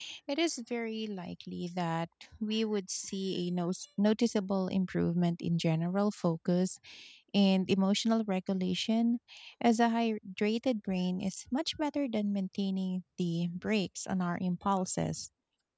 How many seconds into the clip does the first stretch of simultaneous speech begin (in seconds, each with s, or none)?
none